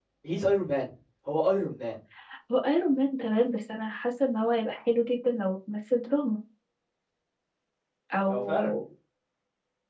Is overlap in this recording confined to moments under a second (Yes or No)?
Yes